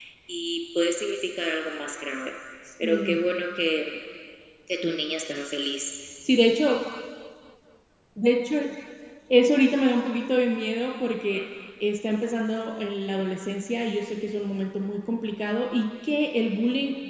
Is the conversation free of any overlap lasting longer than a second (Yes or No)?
Yes